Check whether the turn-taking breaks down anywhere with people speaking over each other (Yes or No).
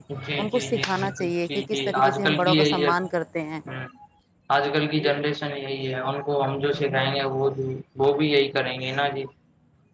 Yes